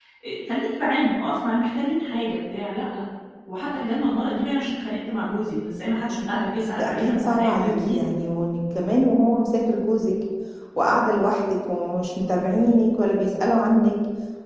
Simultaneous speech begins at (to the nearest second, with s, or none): 7 s